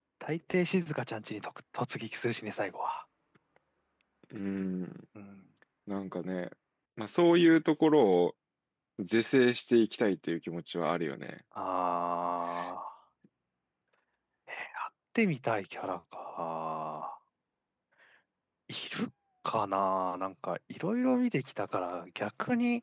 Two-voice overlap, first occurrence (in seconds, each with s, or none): none